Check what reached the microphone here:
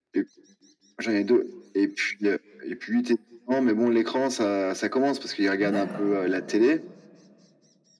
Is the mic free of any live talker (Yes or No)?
No